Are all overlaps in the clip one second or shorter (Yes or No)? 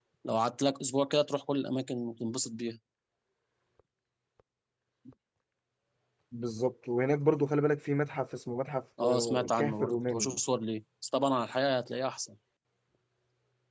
No